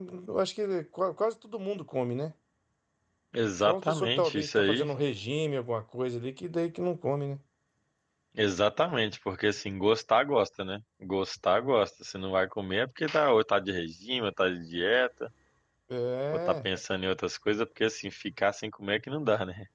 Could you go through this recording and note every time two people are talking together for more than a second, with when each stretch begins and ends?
3.7-4.9

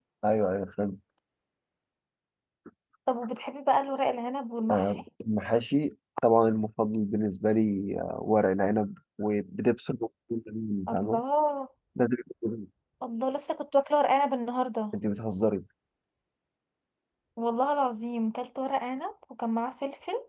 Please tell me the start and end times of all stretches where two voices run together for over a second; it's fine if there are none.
none

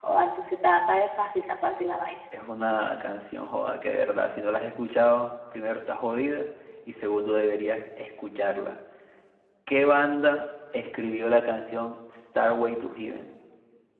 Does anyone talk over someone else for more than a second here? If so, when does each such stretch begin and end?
none

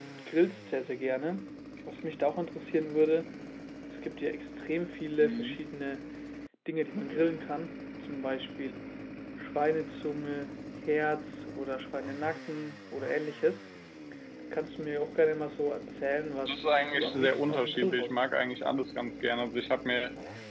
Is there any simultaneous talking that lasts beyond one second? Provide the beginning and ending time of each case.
16.4-18.2

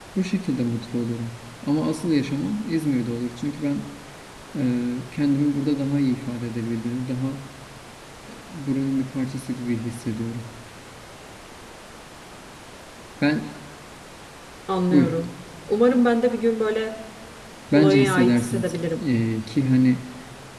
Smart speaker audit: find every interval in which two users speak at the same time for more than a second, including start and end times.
17.7-19.0

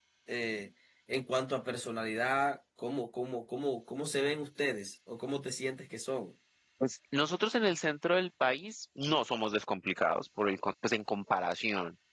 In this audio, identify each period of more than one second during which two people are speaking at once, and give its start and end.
none

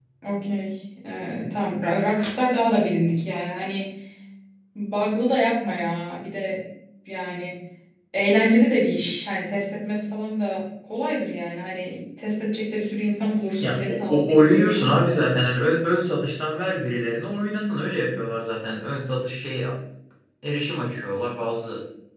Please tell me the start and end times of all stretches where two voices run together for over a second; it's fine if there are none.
13.6-14.9

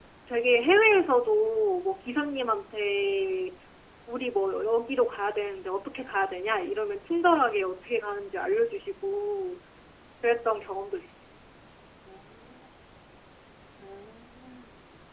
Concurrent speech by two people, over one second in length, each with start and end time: none

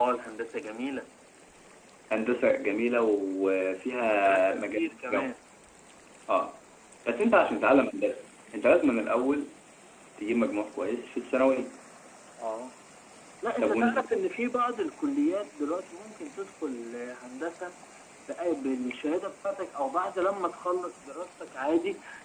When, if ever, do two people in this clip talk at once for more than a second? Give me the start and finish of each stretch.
4.0-5.3

